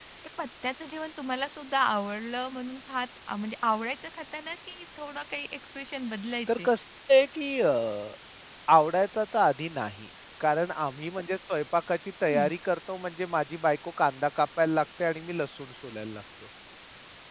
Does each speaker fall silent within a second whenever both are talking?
Yes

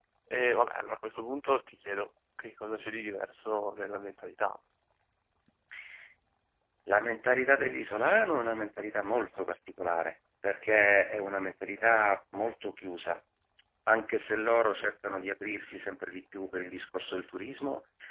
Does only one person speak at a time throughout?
Yes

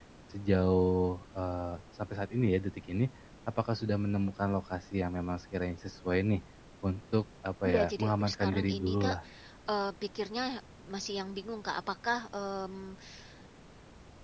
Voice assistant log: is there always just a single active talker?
No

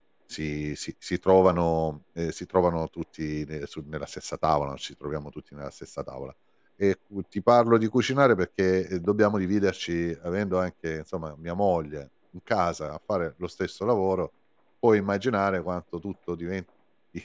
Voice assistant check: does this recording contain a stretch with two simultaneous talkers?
No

